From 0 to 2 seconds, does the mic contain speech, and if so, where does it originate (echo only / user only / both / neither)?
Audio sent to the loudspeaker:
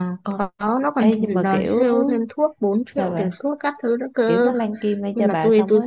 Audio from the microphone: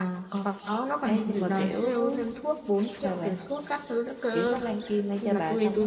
echo only